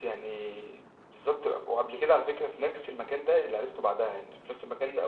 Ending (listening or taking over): listening